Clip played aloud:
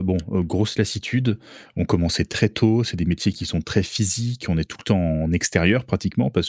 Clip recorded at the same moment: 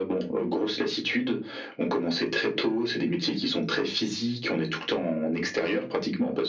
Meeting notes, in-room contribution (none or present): none